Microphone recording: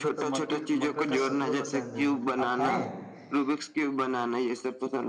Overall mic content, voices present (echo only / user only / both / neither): both